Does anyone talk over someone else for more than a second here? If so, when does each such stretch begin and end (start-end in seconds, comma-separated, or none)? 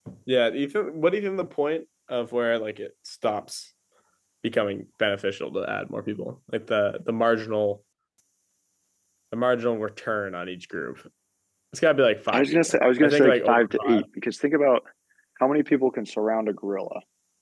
12.3-14.0